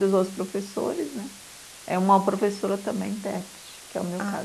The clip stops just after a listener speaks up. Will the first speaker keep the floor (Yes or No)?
No